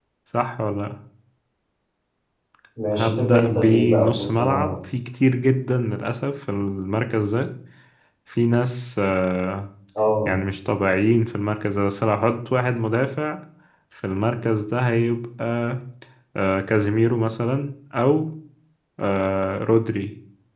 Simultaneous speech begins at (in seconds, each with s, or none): 2.9 s